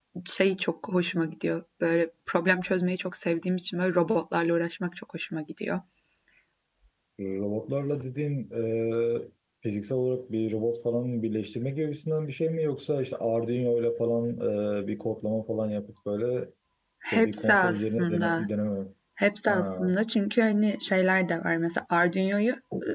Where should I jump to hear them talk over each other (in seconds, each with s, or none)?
17.1 s